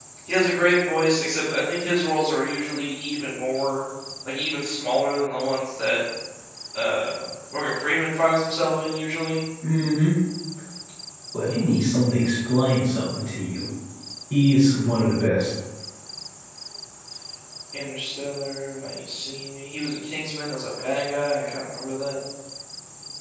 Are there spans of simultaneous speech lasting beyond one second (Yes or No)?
No